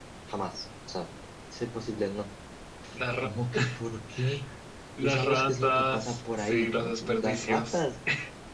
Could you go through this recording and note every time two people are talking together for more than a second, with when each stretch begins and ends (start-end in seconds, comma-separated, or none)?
5.0-7.8